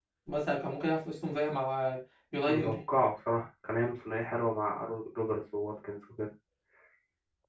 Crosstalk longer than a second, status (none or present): none